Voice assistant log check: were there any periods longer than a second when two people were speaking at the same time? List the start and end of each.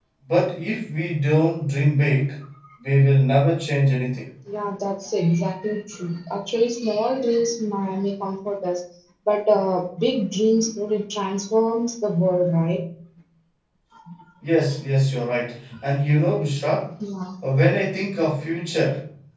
none

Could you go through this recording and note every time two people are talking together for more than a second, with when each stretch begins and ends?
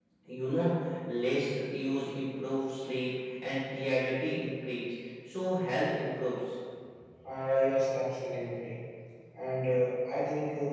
none

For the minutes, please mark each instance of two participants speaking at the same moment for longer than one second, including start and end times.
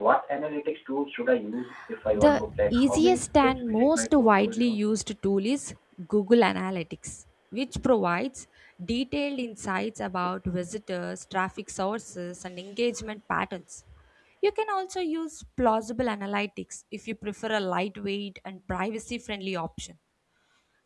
2.1-4.8

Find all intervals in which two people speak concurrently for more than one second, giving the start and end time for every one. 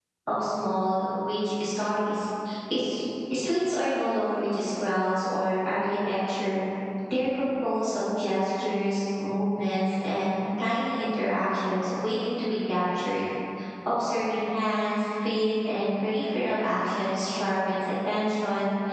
none

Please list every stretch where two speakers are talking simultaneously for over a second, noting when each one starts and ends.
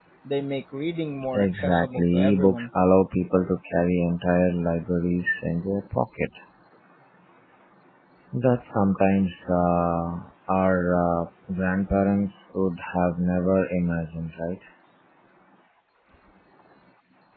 1.3-2.7

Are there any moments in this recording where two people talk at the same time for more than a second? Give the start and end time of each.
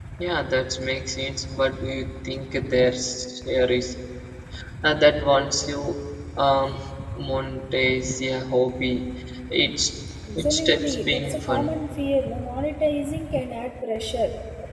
10.3-11.7

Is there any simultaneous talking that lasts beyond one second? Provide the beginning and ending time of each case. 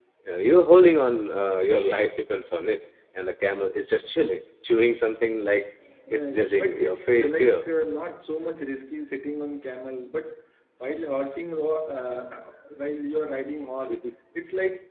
6.1-7.6

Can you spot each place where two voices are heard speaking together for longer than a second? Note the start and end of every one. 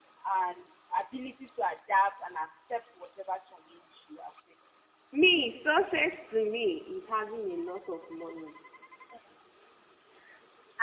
none

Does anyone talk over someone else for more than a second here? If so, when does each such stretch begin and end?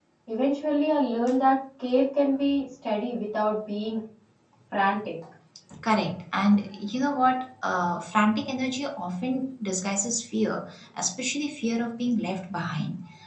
none

